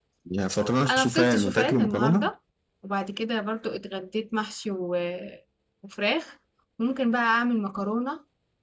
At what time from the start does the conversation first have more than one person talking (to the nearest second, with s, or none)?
1 s